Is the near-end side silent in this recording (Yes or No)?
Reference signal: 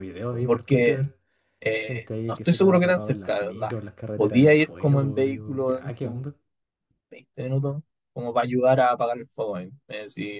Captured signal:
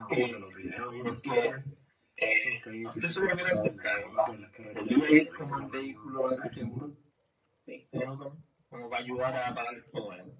Yes